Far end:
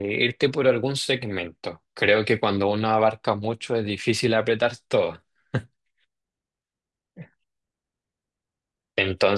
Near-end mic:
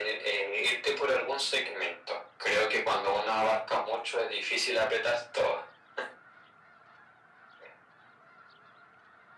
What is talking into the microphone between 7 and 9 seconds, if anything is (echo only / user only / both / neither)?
neither